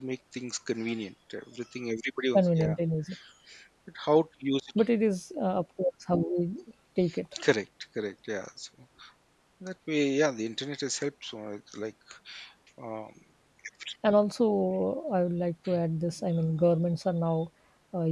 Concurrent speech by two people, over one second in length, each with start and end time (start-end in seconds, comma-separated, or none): none